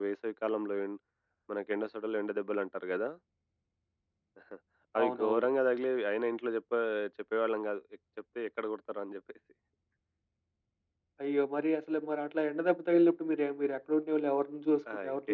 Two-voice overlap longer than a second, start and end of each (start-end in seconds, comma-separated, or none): none